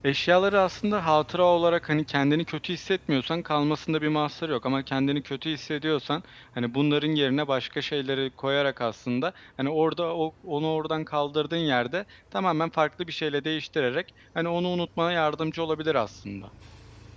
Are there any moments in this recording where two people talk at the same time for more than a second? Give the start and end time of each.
none

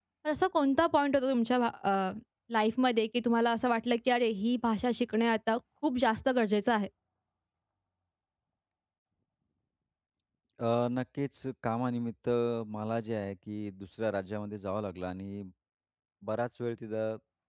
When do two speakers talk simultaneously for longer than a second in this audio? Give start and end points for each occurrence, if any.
none

